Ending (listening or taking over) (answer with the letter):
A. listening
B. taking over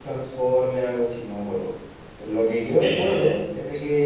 A